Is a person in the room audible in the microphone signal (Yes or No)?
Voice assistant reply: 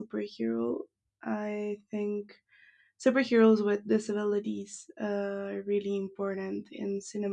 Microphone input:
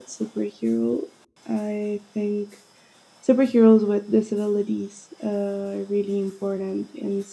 No